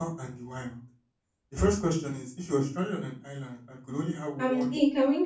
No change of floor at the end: No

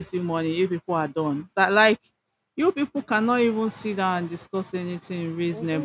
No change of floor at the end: No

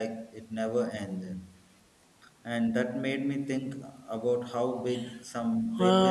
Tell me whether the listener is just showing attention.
No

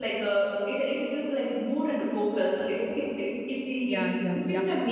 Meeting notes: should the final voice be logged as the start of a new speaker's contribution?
Yes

